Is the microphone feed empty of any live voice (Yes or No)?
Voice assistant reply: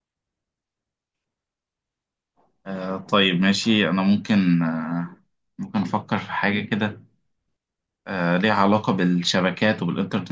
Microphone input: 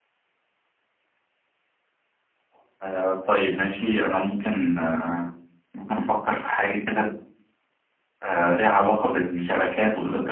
Yes